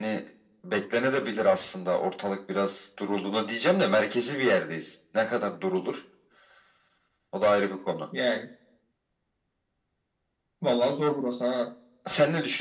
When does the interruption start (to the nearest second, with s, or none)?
none